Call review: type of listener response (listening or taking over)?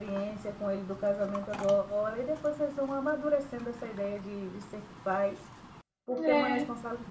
listening